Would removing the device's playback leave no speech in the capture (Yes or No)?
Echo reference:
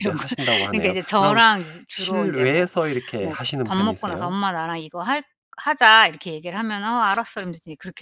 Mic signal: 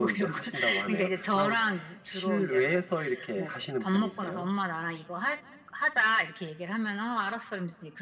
Yes